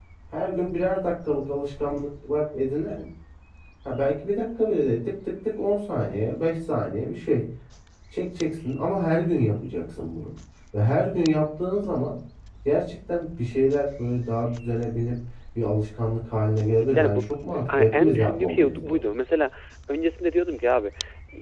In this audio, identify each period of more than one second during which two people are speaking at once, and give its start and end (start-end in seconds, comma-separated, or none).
17.7-19.0